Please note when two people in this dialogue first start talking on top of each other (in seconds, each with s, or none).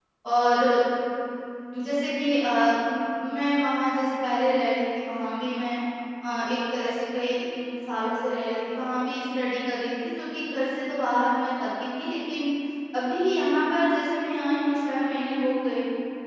none